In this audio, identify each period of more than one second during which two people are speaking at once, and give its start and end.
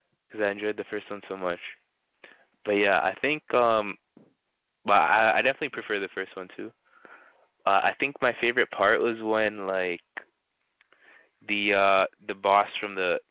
none

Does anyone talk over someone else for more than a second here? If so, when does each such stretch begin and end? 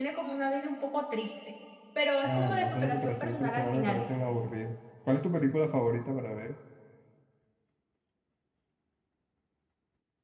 2.2-4.0

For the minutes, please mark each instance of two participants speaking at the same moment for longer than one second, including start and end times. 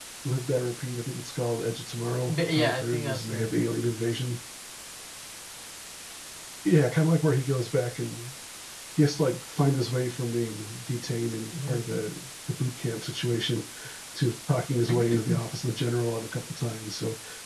2.3-3.5

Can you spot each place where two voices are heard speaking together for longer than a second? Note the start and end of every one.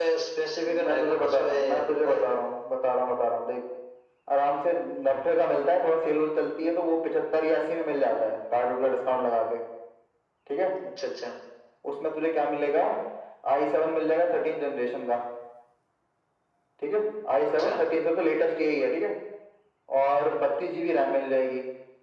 0.6-2.2

